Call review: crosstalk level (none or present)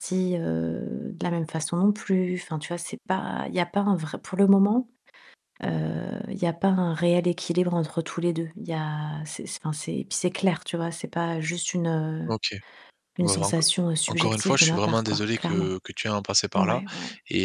present